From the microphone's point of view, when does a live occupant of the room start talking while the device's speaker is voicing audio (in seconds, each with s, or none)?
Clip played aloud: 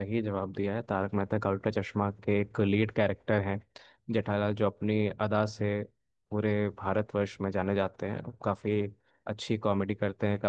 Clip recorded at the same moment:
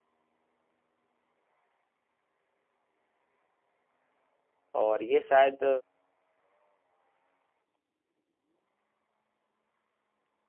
4.8 s